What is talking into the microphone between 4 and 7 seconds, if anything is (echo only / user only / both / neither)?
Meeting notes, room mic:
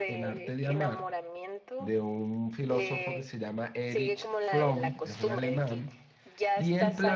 both